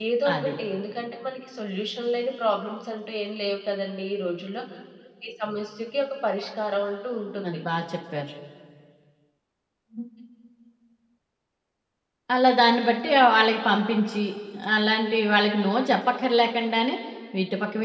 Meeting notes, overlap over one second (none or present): none